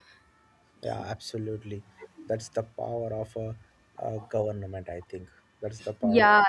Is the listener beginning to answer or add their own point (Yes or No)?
Yes